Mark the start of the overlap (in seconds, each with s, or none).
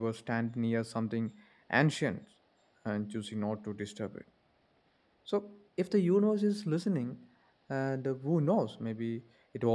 none